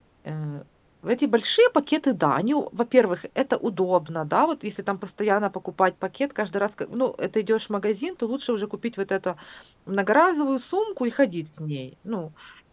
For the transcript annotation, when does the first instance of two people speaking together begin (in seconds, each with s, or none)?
none